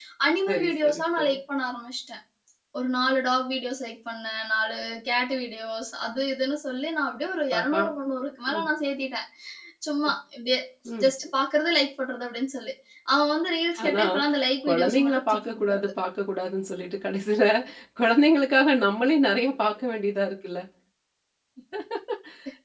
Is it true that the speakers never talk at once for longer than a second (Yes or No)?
No